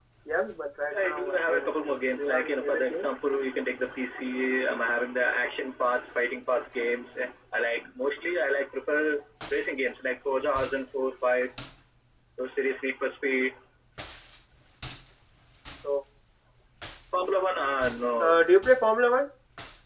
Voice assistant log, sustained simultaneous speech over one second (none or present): present